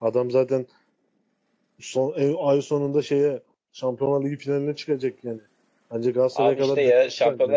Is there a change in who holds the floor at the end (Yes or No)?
Yes